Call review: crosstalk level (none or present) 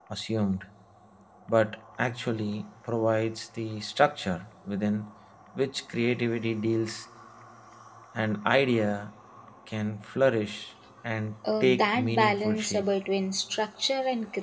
present